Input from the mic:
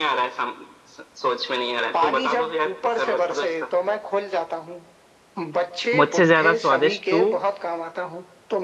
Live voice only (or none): मुझसे ज्यादा स्वादिष्ट तू